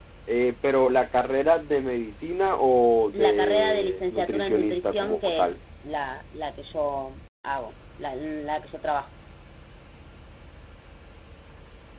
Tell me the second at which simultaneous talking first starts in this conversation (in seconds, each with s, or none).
3.1 s